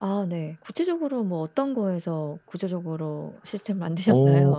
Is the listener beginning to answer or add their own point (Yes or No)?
Yes